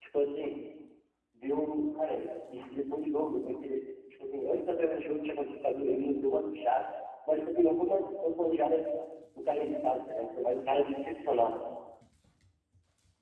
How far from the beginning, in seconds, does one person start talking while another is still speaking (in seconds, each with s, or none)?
none